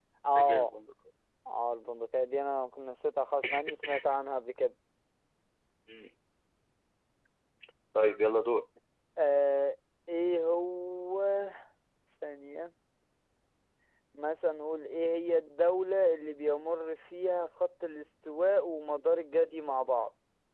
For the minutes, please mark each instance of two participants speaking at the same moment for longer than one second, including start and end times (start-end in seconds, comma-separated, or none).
none